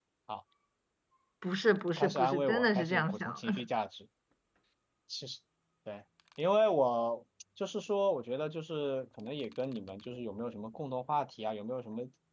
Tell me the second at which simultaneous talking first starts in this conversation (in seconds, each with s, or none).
2.0 s